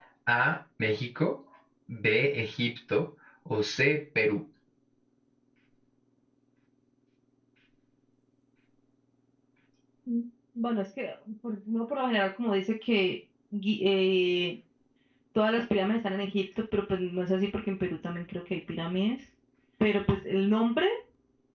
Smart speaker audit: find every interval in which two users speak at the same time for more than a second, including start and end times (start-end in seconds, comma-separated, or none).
none